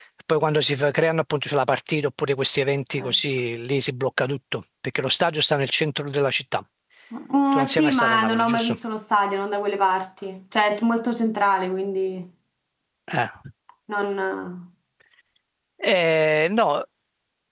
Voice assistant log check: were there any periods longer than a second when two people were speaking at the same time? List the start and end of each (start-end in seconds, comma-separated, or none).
7.5-8.8